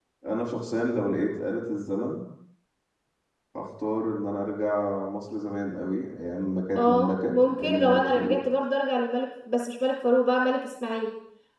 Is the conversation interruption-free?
No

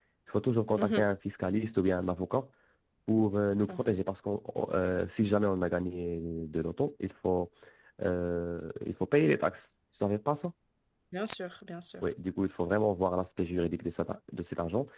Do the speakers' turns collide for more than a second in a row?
No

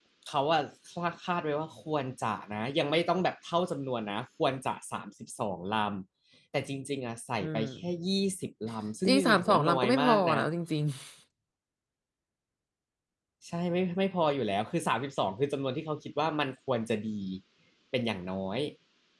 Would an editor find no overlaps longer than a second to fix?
No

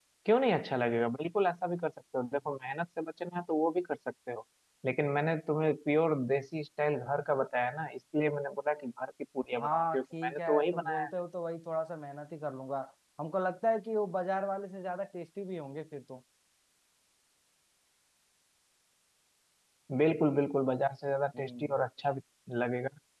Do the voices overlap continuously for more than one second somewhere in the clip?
Yes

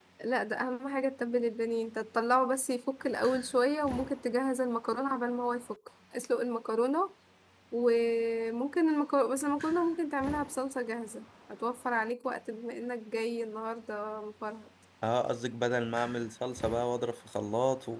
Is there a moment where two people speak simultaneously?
No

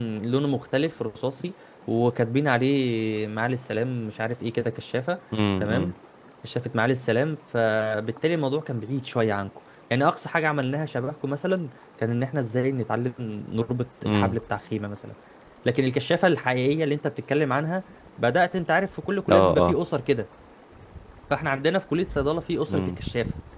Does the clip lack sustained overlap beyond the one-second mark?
Yes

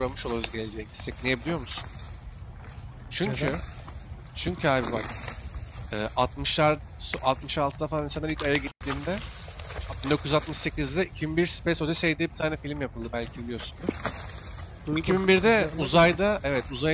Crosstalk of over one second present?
Yes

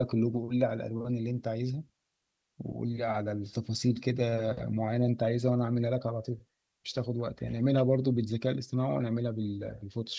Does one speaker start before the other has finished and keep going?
No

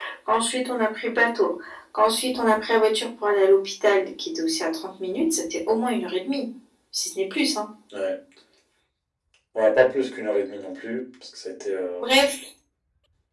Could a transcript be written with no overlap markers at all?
Yes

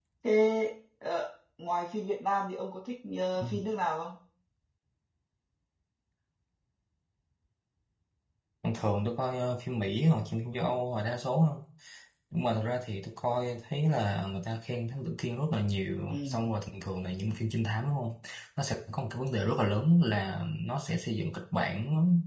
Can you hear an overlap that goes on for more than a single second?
No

